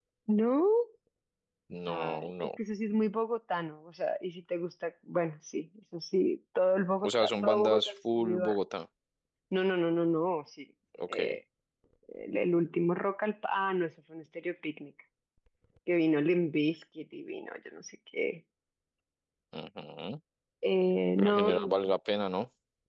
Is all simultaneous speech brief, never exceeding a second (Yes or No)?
No